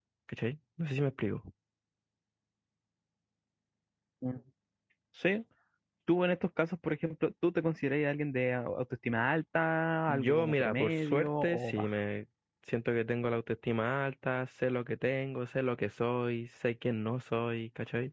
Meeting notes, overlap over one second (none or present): present